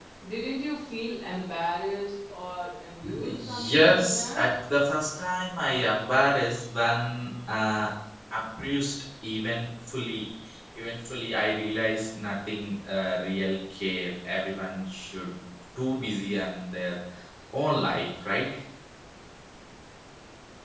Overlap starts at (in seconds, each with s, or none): 3.0 s